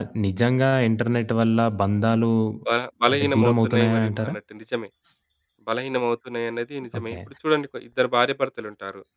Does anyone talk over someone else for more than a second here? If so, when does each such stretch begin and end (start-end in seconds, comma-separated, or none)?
3.1-4.3